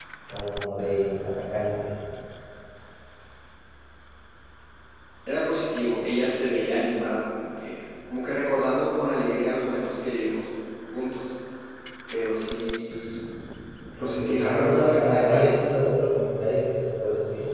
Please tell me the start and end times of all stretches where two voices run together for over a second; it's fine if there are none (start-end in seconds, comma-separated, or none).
14.0-15.5